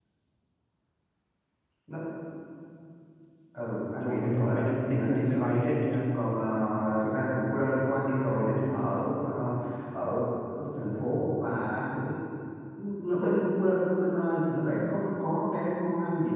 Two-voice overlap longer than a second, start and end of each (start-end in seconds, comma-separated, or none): 4.0-5.7